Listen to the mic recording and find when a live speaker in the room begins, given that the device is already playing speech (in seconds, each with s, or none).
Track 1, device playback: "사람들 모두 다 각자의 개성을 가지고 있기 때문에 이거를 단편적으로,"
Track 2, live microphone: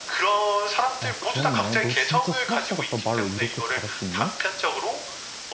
1.0 s